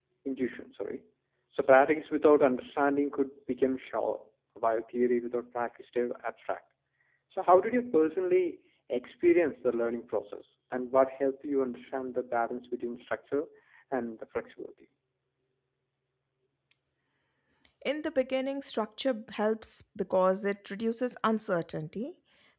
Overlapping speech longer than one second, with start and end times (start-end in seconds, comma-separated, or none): none